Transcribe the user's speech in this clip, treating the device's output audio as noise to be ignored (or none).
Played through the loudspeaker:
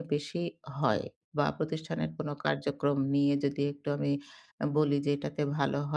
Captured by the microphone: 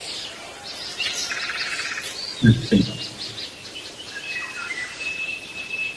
আচ্ছা।